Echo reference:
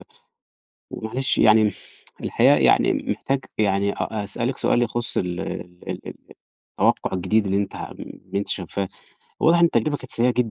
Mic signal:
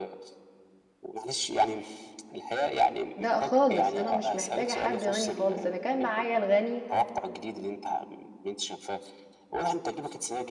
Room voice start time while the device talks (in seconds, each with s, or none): 3.2 s